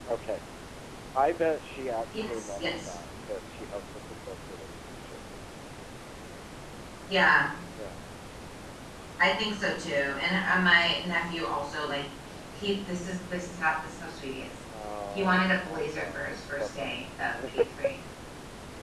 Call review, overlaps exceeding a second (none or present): present